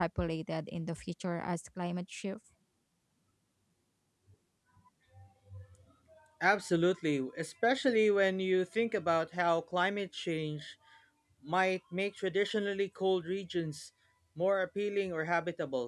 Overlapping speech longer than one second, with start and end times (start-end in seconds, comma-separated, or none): none